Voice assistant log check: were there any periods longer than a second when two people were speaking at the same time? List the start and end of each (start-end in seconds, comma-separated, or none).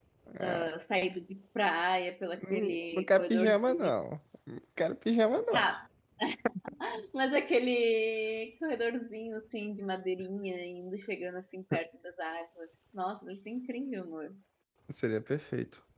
2.4-3.9